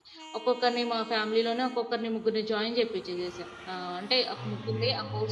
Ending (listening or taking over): listening